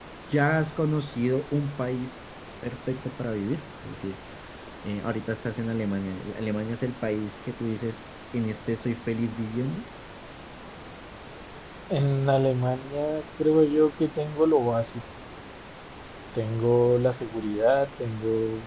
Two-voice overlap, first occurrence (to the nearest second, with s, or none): none